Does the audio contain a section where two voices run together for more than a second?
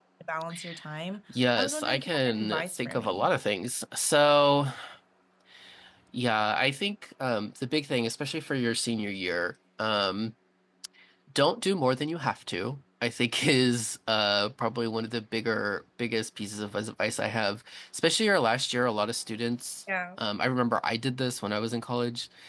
Yes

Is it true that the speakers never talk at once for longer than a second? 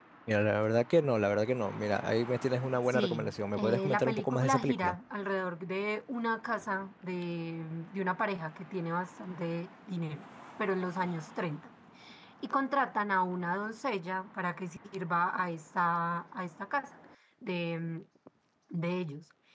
No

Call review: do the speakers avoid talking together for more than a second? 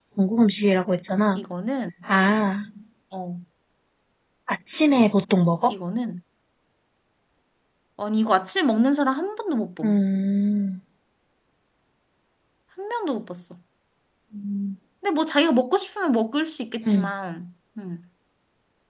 Yes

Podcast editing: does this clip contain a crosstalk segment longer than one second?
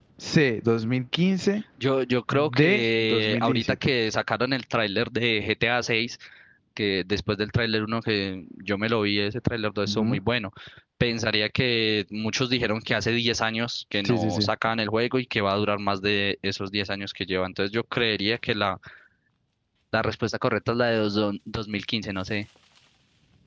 Yes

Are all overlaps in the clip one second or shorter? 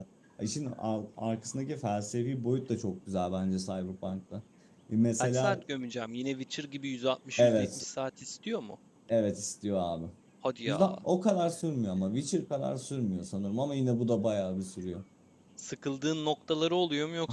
Yes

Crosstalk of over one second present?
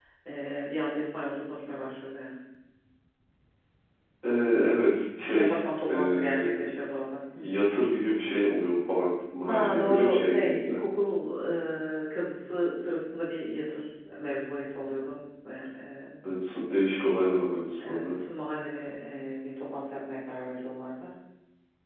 Yes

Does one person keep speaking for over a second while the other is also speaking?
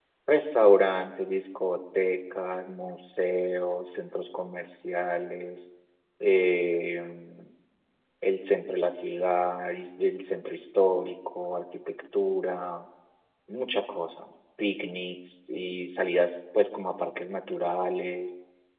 No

